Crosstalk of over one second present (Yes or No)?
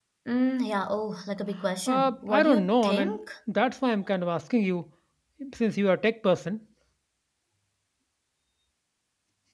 Yes